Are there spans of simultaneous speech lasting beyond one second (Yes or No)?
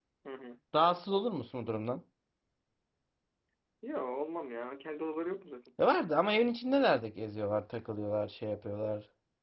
No